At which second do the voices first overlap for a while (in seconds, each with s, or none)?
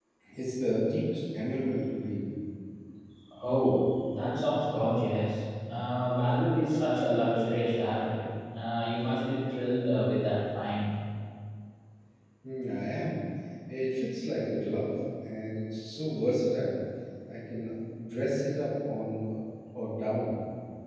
none